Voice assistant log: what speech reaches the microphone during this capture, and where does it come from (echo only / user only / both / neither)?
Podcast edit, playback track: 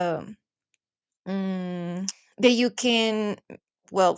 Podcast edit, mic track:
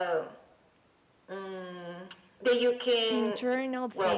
both